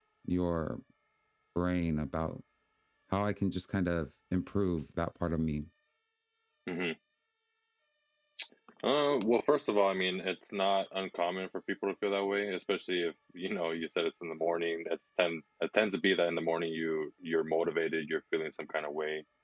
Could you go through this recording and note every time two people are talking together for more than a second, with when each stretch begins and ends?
none

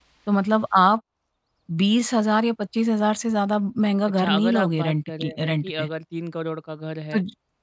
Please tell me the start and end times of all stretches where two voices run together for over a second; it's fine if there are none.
4.1-5.9

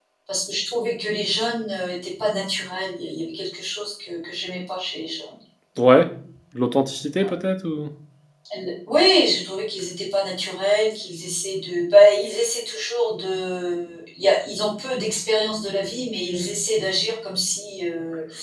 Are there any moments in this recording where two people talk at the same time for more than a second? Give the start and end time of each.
none

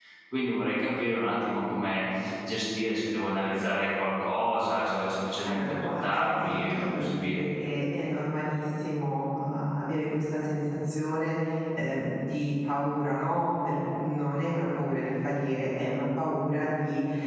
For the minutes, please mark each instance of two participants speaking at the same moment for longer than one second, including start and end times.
5.5-7.4

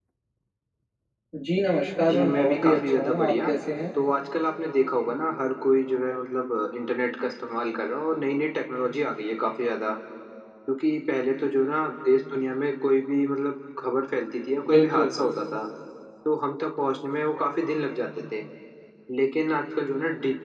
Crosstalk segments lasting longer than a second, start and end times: 2.1-3.5

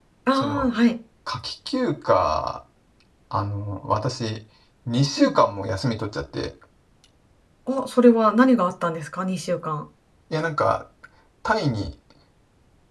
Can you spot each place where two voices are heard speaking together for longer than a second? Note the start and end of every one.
none

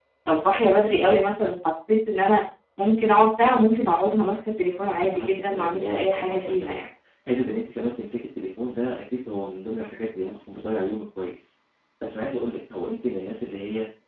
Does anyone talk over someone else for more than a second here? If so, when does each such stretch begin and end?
4.8-6.8

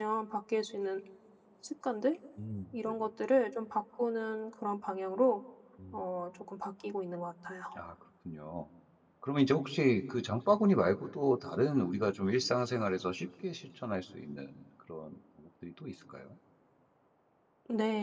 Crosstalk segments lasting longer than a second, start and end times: none

